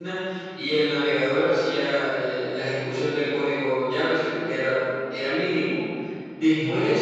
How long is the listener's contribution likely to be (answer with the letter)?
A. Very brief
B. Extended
A